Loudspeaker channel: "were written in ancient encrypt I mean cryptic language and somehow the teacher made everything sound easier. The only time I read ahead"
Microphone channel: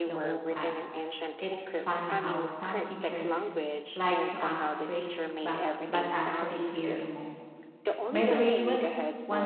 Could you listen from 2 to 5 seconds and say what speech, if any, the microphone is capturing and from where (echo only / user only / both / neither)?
both